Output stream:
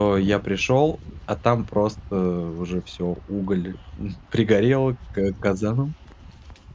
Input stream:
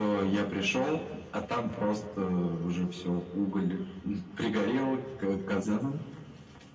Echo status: present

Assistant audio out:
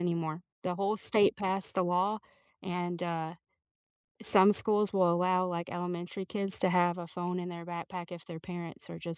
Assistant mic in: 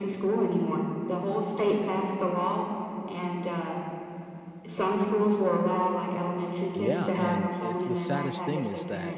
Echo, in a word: present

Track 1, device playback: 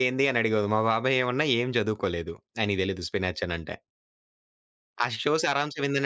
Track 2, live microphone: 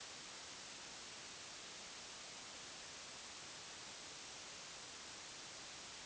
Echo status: none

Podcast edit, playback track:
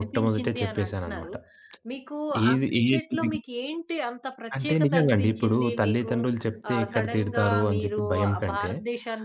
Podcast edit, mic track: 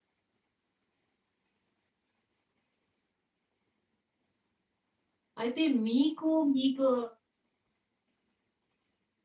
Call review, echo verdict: none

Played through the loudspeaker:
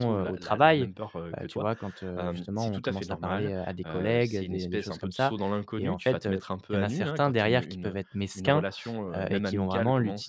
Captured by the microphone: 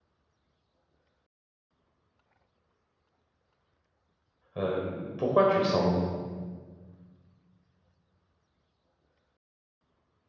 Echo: none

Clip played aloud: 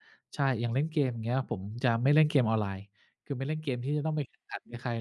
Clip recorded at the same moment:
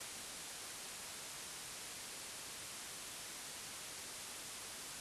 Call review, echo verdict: none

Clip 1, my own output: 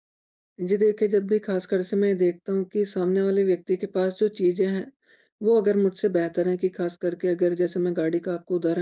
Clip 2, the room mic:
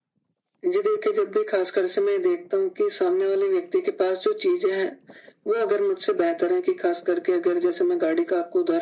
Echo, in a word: present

